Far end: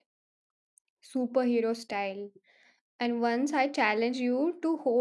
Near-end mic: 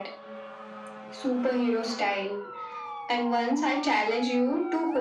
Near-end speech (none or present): none